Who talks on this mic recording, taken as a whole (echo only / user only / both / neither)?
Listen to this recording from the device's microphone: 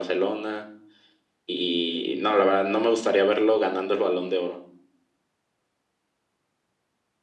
echo only